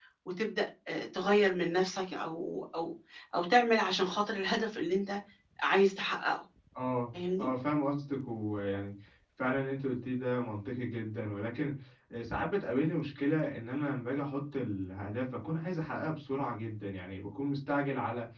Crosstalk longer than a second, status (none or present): none